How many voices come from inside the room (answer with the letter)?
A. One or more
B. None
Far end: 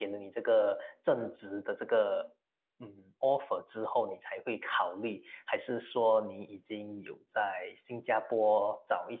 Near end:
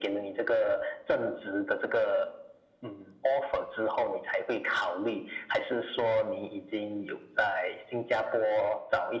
B